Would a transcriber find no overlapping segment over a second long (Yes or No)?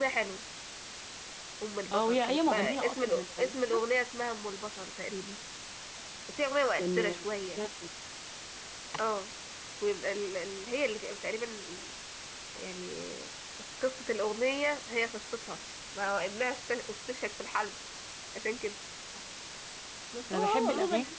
No